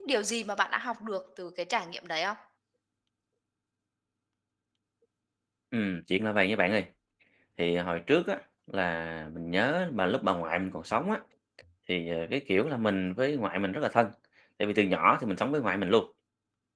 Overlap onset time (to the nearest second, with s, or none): none